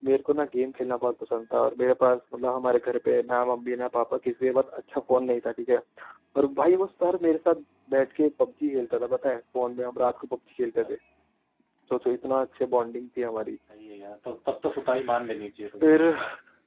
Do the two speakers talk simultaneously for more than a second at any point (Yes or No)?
No